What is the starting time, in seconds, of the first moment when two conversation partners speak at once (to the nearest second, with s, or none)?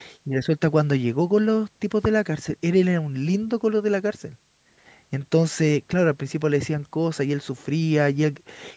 none